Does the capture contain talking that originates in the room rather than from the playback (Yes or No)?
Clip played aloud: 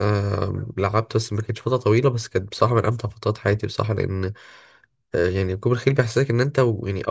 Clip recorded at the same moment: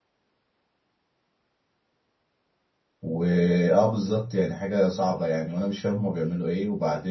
Yes